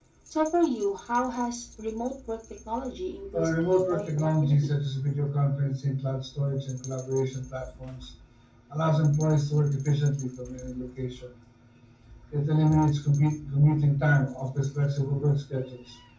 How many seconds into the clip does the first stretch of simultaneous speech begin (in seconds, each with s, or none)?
3.3 s